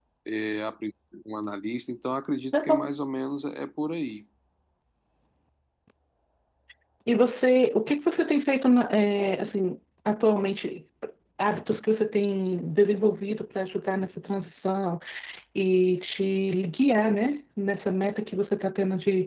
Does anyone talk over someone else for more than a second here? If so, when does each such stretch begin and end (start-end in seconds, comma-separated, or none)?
none